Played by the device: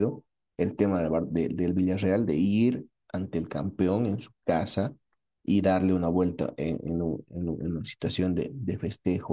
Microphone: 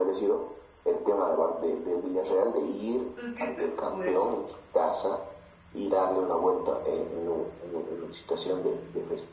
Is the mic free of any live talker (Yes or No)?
No